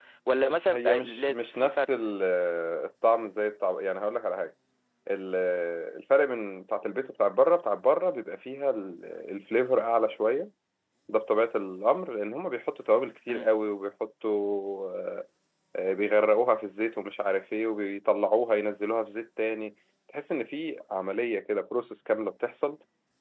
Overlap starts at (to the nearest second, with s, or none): 1 s